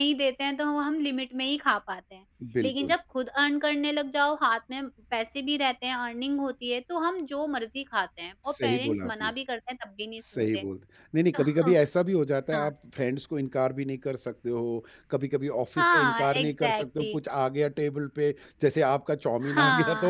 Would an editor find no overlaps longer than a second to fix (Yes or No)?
No